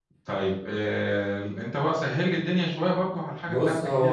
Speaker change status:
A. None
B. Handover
B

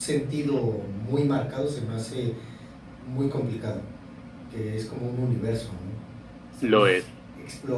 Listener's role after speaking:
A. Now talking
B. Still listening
B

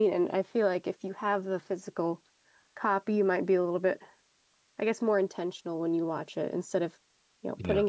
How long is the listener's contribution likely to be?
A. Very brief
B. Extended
A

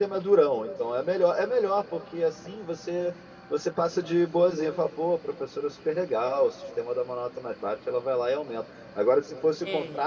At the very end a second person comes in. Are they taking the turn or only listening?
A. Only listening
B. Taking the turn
A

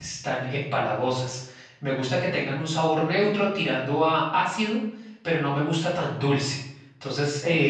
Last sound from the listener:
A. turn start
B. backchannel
B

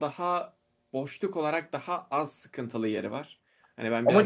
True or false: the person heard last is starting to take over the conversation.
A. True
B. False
A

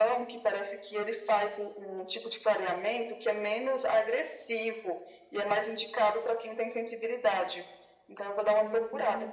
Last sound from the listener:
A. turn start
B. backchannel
A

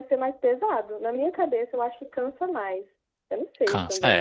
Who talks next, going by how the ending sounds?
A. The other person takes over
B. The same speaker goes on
A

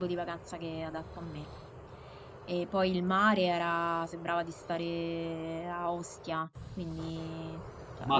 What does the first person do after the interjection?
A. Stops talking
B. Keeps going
B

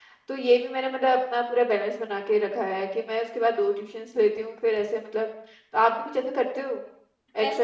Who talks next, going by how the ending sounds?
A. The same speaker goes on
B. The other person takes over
B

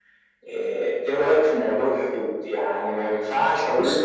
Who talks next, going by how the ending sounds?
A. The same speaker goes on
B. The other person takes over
A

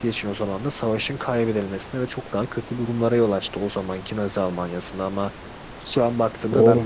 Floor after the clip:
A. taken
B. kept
B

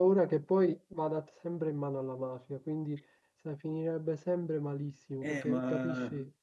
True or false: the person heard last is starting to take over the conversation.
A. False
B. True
B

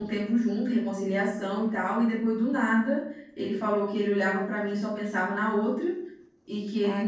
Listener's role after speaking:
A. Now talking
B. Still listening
B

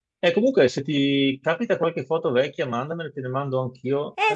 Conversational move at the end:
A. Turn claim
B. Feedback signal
A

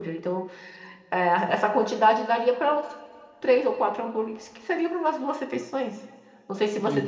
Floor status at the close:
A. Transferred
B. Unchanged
B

